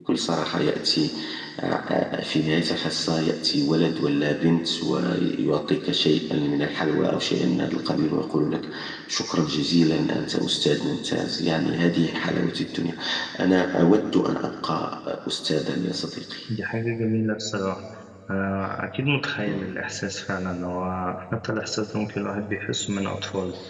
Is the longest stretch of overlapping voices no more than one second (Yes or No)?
Yes